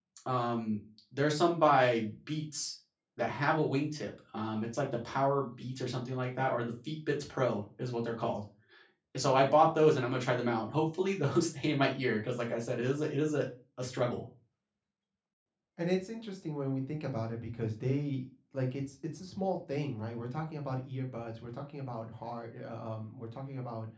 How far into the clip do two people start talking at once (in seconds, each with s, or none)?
none